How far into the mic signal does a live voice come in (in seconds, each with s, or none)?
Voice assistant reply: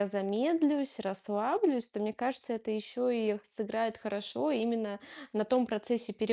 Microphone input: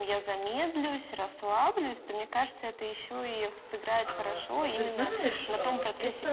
4.0 s